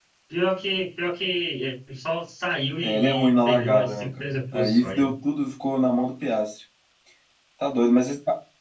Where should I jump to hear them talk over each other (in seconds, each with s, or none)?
2.8 s